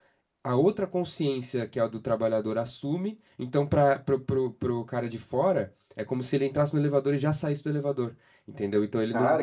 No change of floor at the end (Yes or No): No